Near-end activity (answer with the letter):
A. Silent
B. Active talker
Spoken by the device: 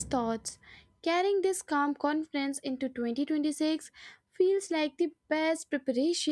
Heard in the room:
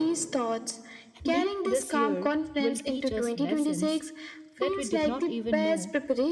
B